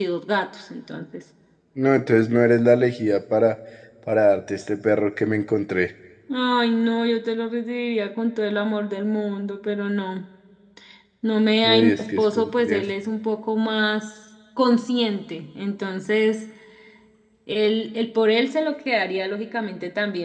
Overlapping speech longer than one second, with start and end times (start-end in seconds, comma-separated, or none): 11.6-12.9